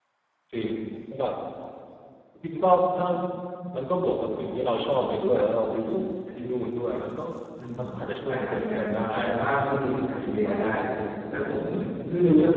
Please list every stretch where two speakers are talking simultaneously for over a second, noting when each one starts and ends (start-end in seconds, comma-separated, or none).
8.3-9.6